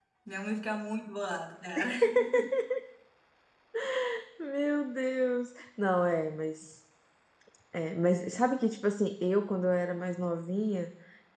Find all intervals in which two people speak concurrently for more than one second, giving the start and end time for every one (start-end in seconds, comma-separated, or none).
none